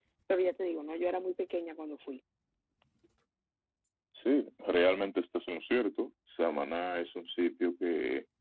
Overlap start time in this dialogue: none

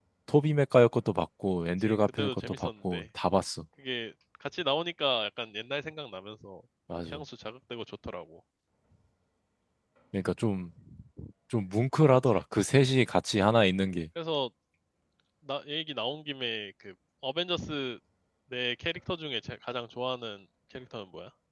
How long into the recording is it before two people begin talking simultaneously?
1.8 s

